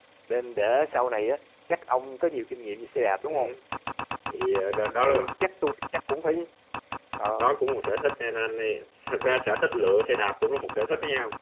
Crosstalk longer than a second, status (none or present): none